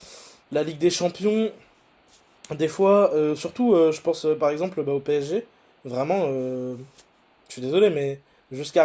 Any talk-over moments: No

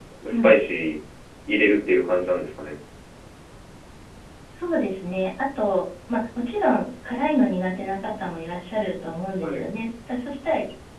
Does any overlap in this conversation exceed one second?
No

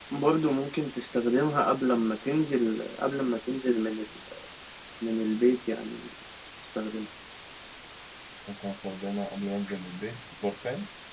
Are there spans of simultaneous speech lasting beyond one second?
No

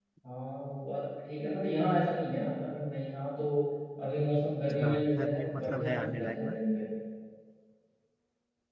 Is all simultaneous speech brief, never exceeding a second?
No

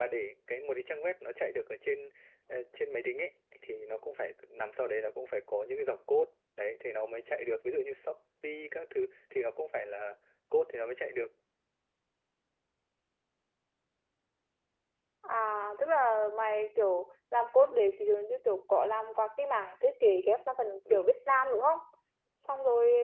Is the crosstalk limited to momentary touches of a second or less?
Yes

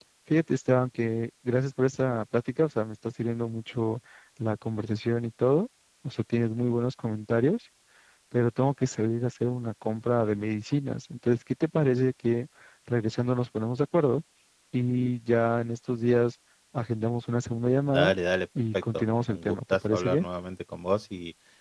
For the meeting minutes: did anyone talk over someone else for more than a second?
Yes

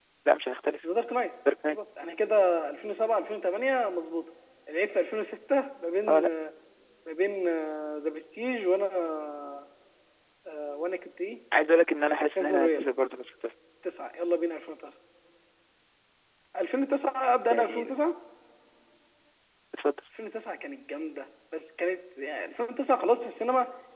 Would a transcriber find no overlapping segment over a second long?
Yes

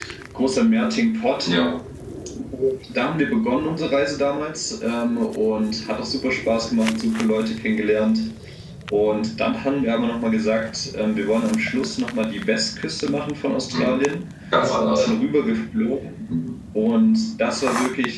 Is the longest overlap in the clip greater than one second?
No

